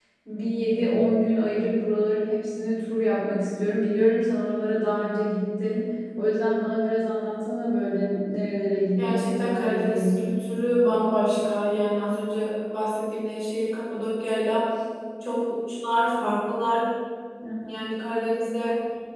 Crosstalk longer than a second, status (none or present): present